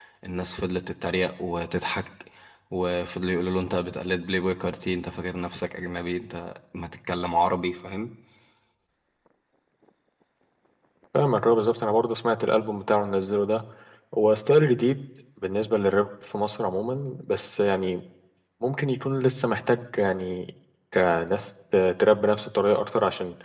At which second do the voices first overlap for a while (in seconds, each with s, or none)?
none